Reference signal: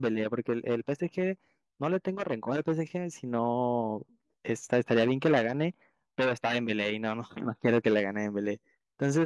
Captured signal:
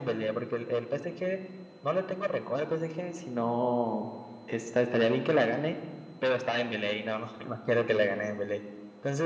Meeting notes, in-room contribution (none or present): none